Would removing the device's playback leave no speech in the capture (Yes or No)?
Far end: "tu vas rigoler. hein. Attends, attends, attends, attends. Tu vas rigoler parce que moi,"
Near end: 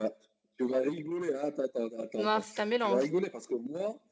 No